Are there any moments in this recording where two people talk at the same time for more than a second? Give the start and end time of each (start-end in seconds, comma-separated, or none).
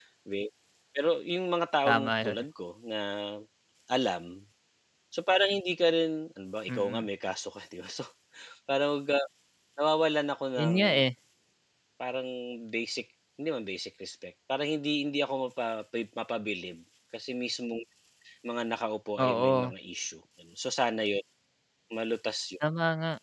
none